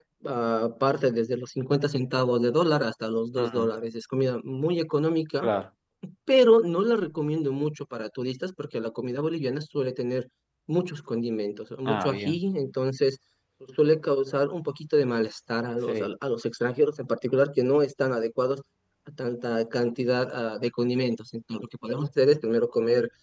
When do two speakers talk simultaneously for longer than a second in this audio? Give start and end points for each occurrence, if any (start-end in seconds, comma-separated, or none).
none